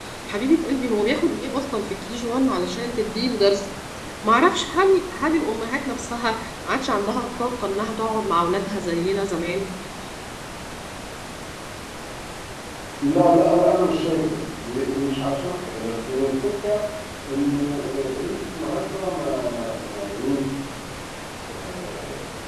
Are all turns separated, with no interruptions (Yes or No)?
Yes